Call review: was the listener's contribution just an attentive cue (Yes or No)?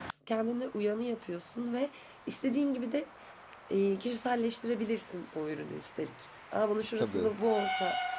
Yes